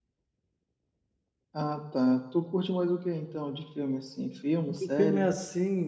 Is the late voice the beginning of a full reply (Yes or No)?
Yes